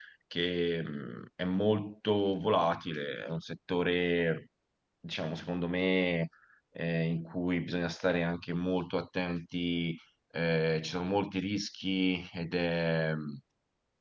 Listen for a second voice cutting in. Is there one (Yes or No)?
No